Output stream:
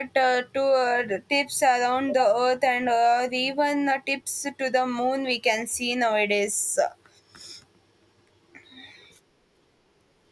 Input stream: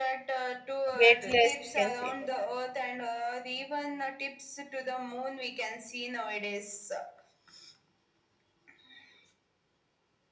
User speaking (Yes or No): Yes